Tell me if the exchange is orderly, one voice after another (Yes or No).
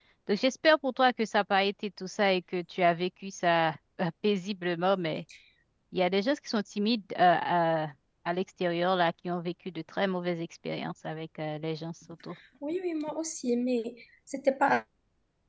Yes